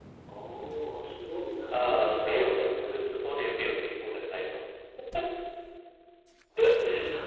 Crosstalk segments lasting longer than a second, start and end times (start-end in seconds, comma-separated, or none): 1.7-2.9